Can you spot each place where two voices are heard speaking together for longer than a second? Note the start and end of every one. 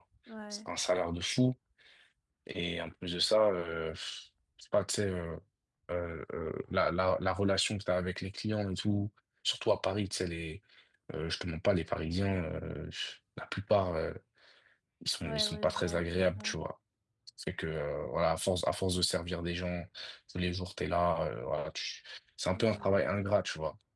15.2-16.6

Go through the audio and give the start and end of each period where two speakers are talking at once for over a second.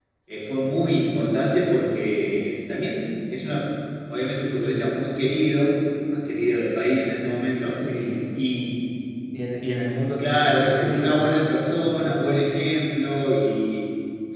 10.2-12.2

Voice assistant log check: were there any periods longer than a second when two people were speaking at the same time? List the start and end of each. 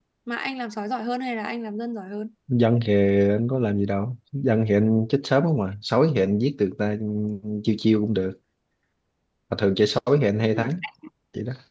none

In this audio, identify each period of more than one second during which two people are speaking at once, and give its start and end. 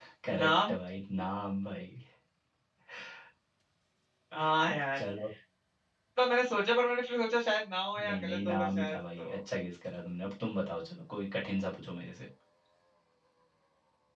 8.0-9.4

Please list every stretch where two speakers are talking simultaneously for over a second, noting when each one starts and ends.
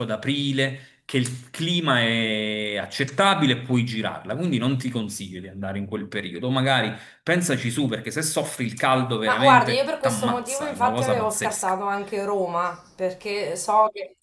9.2-11.7

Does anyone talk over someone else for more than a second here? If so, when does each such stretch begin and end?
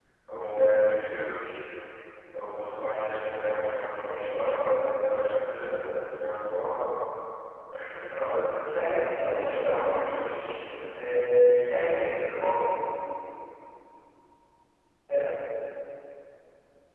8.7-10.5

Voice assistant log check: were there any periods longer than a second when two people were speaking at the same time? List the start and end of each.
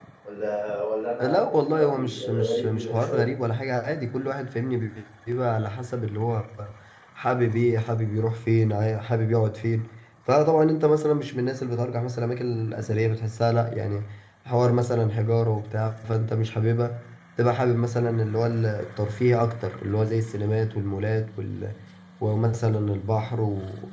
1.2-3.3

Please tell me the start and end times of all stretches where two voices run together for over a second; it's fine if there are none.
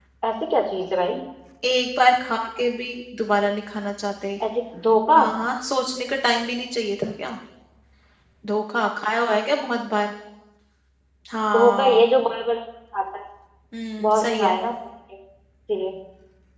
none

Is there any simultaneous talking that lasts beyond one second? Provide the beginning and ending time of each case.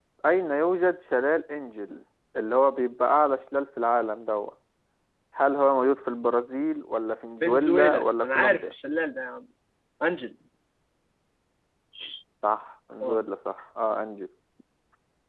7.4-8.7

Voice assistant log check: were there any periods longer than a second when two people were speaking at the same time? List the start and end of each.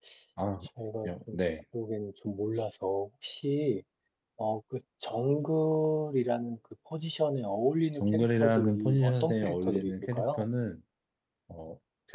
8.0-10.5

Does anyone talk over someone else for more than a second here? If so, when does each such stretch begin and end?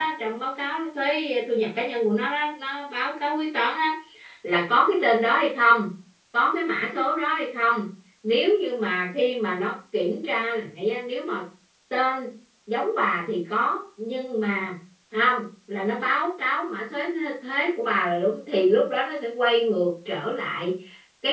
none

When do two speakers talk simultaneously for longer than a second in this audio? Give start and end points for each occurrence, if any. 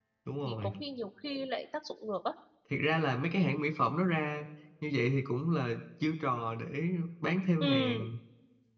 none

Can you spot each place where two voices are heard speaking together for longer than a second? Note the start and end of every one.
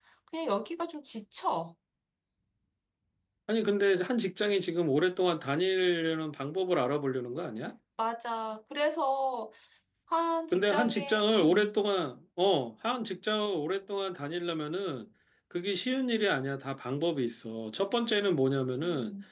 10.5-11.7

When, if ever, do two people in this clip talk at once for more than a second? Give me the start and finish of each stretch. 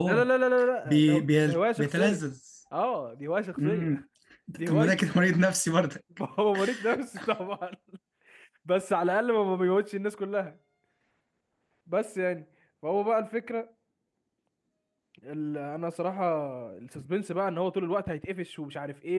0.8-2.2

